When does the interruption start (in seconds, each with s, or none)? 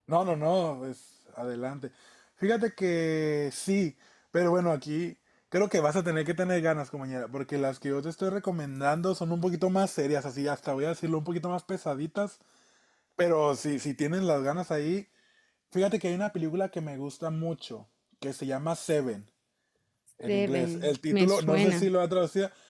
20.3 s